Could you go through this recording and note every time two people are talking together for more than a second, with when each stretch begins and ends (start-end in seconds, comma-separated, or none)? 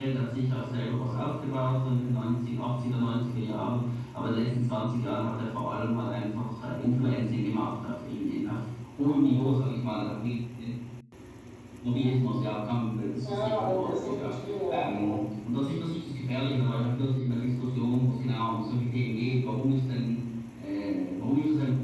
13.2-15.2